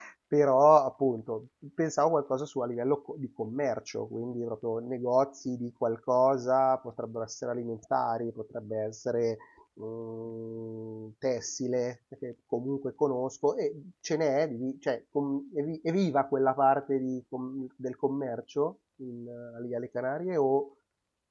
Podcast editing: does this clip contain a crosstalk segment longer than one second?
No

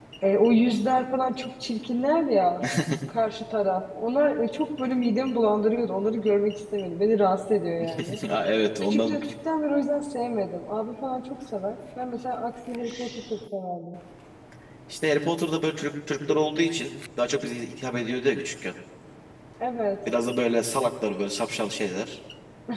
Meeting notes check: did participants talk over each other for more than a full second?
No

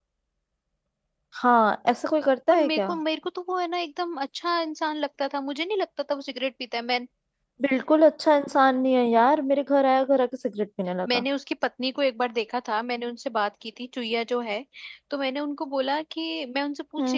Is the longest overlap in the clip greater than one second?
No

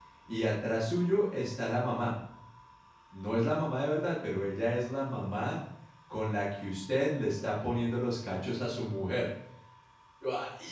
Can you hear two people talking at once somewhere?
No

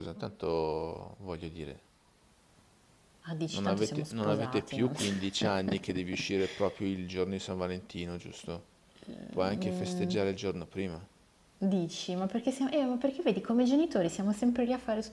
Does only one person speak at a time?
No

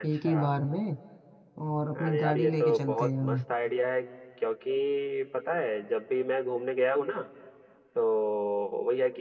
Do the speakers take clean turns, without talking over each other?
No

